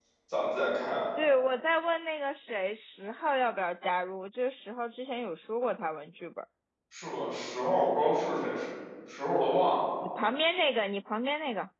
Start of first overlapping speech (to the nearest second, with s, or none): none